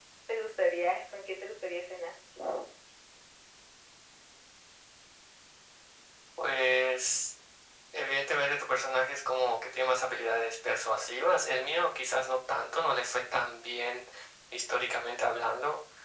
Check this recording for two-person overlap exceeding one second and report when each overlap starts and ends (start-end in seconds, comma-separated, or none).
none